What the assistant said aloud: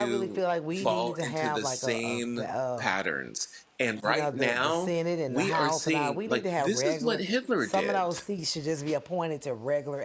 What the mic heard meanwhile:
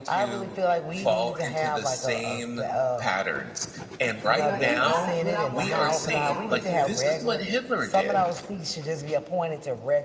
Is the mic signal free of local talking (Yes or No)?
No